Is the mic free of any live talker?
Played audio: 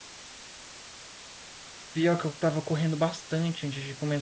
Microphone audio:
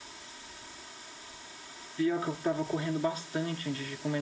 Yes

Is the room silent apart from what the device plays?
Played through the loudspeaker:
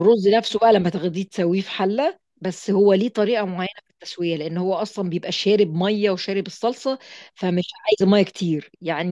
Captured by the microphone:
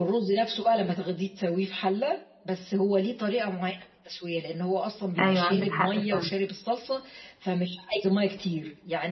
No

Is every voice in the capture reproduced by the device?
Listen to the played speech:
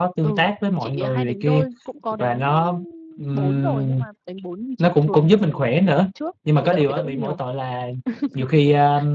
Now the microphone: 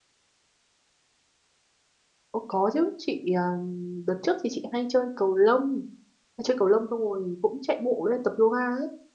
No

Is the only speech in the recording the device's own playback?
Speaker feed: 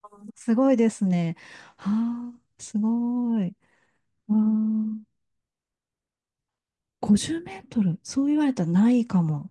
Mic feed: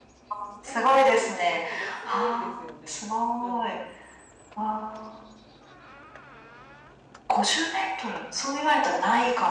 No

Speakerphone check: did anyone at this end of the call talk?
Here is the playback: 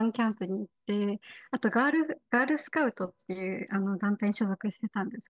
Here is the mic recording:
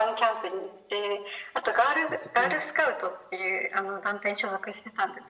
Yes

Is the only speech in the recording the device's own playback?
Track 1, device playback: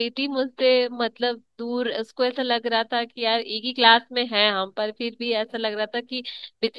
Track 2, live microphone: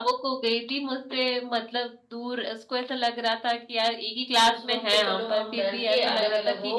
No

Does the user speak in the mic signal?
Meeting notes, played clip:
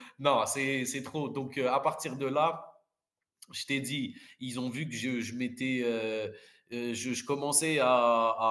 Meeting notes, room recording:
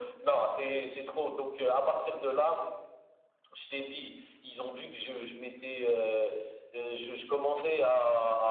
No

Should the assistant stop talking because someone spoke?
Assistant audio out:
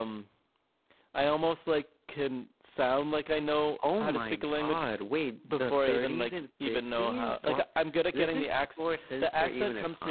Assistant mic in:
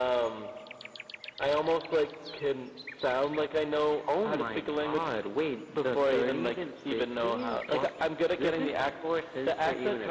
No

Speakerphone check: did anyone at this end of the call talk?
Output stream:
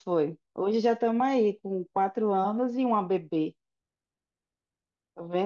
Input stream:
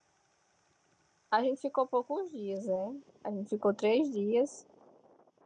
Yes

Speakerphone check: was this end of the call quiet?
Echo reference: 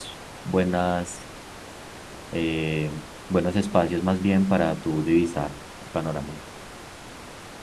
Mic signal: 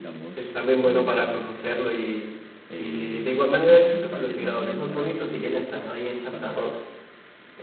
No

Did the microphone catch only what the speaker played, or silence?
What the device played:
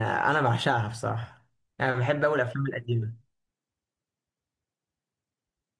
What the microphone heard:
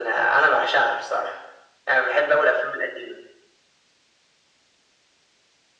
Yes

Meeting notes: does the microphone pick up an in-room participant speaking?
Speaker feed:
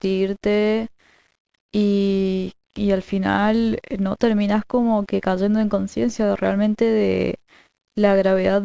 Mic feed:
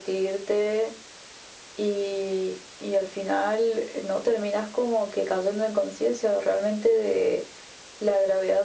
No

